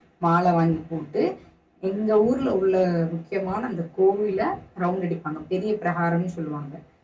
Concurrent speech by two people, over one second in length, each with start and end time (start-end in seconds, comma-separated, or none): none